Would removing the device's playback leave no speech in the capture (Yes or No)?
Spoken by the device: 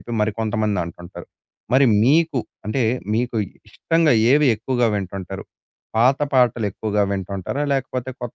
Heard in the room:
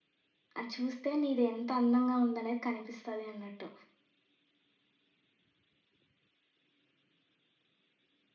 No